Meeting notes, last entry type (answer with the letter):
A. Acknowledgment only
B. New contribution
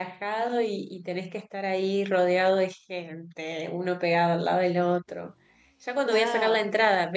A